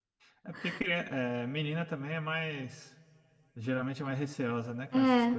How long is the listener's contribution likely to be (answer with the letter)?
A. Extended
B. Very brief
A